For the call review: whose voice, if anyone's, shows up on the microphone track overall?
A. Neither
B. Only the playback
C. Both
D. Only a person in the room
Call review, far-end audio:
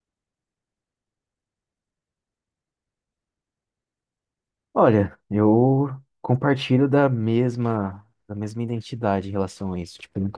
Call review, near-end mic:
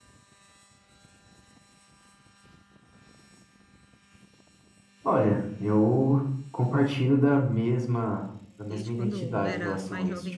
C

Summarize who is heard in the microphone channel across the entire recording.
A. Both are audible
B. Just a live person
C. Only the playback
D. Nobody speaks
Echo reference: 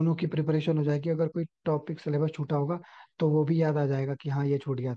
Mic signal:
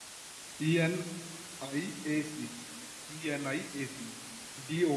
B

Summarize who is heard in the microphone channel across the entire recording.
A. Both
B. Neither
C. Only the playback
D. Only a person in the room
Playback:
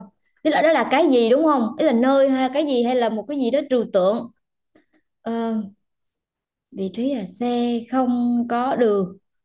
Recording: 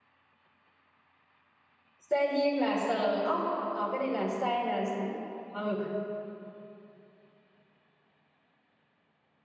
D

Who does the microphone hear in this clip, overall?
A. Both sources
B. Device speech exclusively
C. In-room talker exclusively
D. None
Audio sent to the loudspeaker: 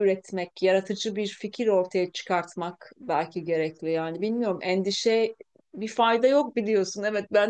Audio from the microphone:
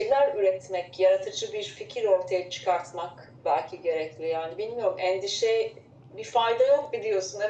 B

